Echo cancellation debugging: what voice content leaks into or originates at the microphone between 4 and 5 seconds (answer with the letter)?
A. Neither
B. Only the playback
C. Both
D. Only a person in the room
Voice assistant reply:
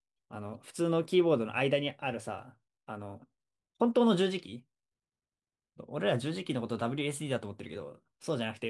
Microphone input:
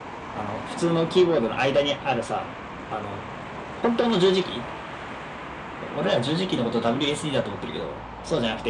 B